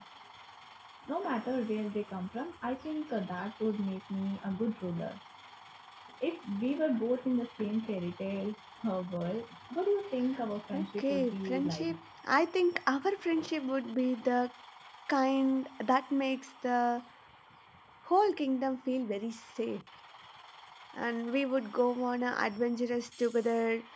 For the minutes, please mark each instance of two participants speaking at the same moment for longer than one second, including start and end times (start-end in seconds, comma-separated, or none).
10.7-11.9